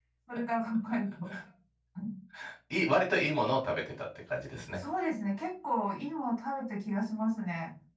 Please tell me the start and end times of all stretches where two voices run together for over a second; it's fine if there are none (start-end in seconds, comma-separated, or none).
none